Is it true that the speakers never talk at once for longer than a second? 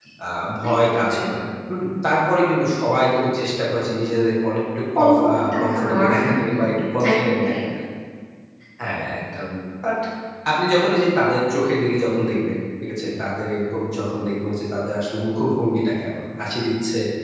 No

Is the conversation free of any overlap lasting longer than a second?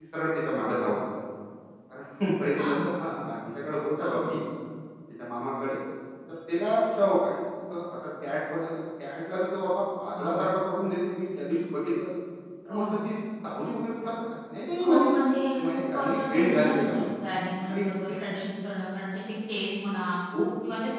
No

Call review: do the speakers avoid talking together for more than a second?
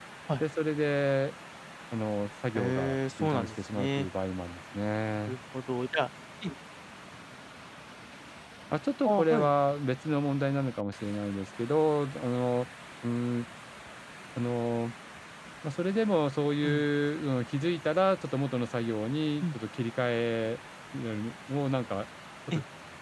No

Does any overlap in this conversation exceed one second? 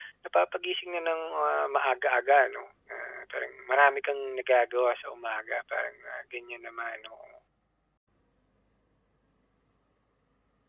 No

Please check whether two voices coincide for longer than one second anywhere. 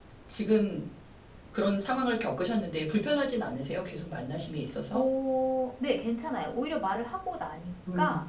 No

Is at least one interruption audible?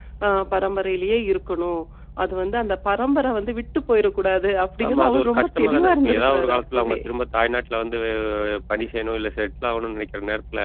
Yes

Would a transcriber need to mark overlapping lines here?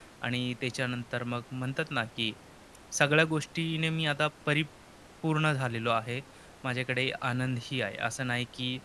No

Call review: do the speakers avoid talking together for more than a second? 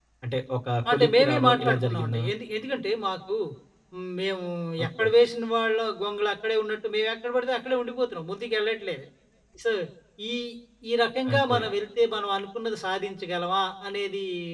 No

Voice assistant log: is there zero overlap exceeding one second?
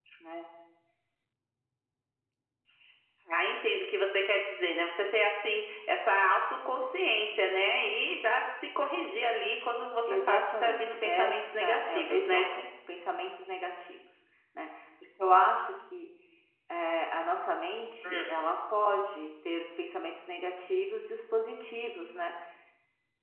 No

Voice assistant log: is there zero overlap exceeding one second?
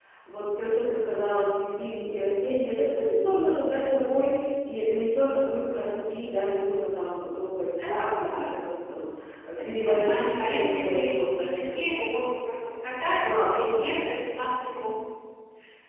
No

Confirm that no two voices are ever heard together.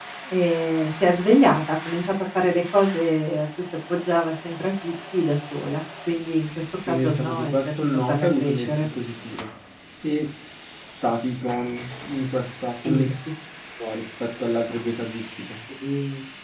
No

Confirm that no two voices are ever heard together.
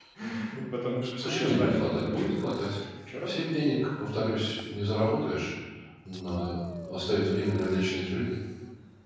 No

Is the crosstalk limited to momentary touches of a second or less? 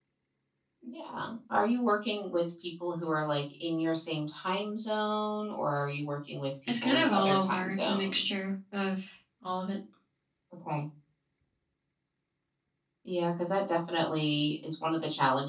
No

